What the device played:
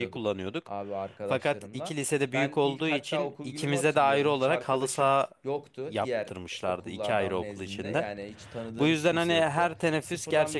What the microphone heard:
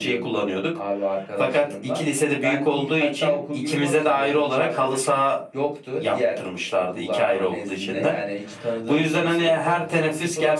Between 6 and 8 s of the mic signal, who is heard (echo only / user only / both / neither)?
echo only